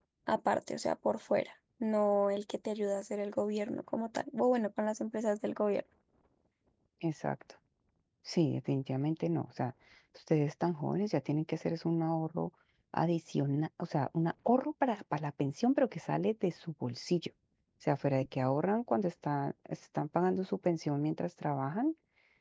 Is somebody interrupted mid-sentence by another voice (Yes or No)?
No